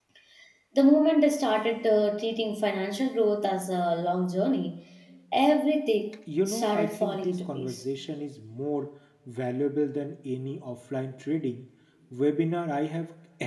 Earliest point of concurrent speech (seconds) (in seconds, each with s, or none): 6.3 s